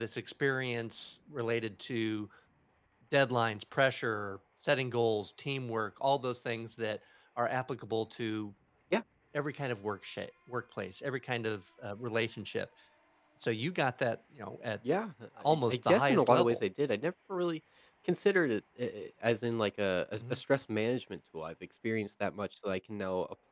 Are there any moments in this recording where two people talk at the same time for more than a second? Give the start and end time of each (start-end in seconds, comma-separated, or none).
15.4-16.6